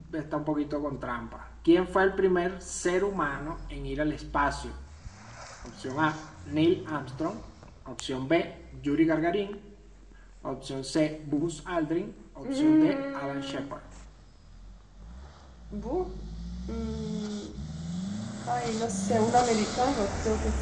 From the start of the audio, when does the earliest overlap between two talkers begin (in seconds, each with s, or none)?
12.4 s